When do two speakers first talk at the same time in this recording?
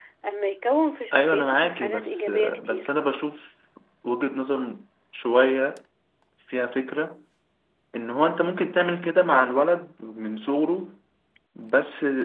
1.1 s

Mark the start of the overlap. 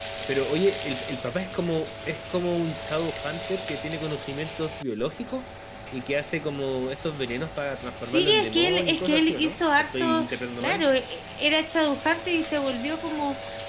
8.0 s

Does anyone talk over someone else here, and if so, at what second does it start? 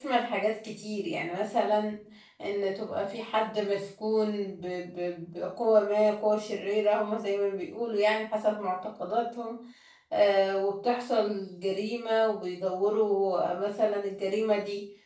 none

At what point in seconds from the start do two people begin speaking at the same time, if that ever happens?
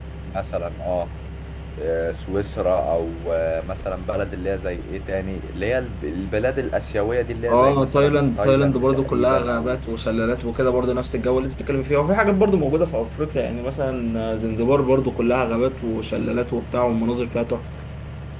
7.5 s

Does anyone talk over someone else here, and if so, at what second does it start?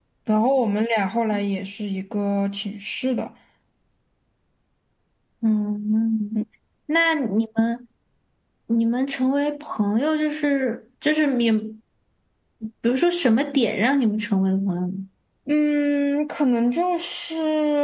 none

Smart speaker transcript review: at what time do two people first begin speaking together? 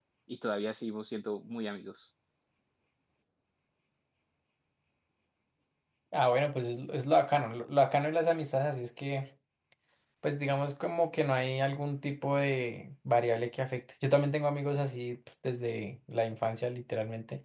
none

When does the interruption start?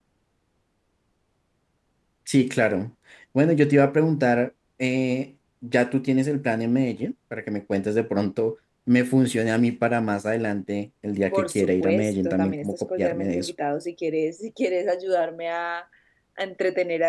11.3 s

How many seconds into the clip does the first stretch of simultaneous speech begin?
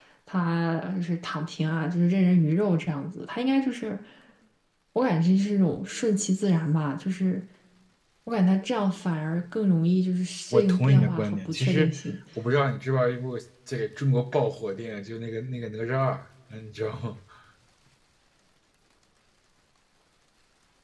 10.5 s

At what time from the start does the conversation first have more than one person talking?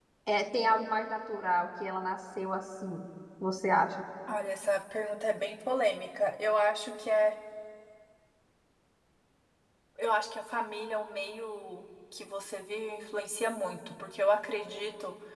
none

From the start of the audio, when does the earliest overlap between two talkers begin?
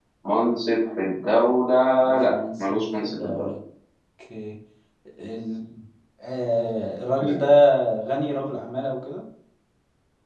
2.2 s

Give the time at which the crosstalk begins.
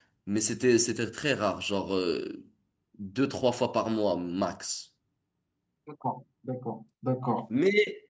none

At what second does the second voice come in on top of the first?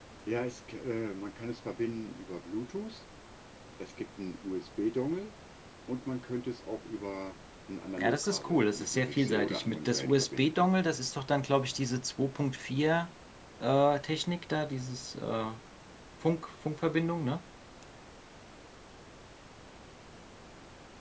8.0 s

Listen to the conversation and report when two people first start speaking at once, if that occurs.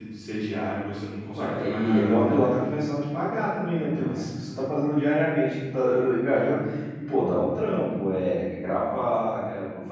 1.3 s

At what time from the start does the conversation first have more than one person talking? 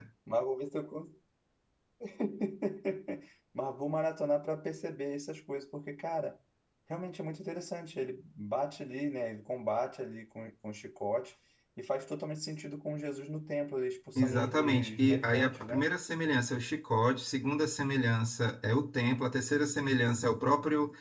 14.2 s

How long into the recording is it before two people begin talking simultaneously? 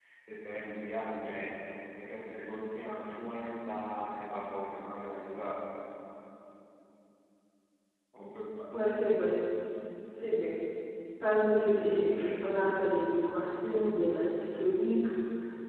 none

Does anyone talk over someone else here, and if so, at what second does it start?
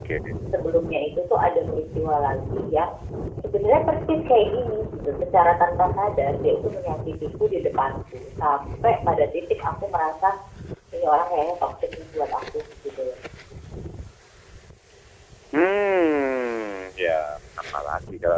none

